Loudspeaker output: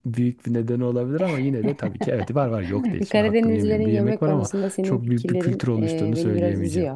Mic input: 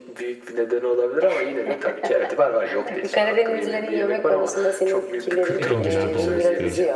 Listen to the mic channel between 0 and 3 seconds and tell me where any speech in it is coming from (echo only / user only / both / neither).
echo only